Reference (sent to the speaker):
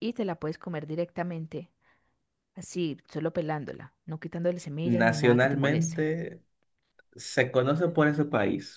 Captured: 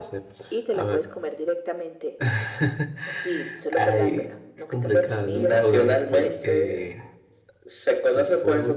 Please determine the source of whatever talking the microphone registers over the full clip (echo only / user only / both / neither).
both